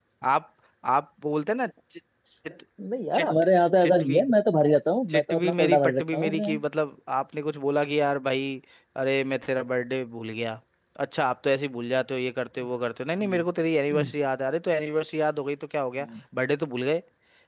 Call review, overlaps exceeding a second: present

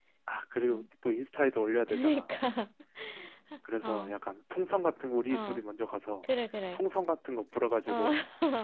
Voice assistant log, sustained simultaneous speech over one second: none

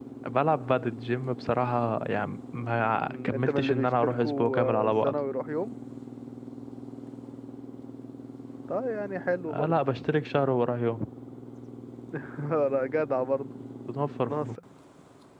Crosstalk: present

